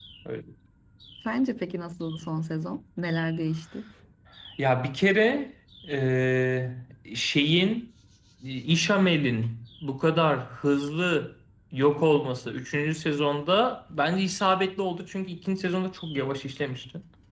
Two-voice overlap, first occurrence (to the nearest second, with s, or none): none